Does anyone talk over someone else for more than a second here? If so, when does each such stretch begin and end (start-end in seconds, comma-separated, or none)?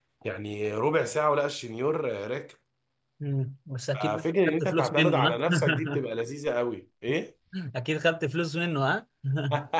4.2-6.1